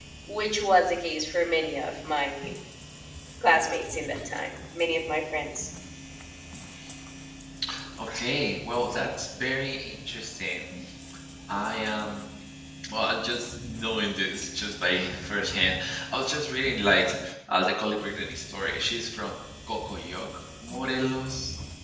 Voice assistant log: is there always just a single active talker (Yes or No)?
Yes